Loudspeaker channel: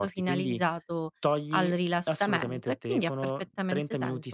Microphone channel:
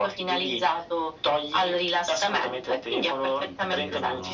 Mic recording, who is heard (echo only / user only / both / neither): both